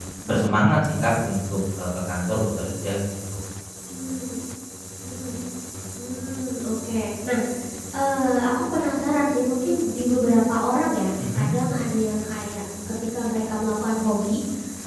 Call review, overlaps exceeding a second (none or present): none